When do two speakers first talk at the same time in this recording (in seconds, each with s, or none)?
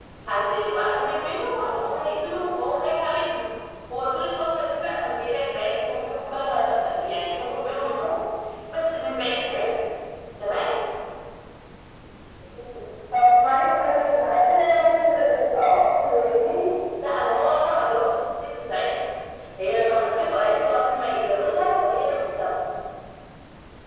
none